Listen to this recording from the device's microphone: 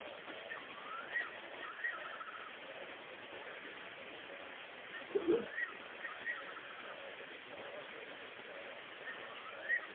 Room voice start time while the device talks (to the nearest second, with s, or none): none